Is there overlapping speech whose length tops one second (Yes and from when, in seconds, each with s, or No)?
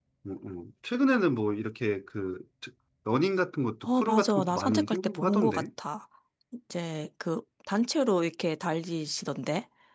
Yes, from 3.8 s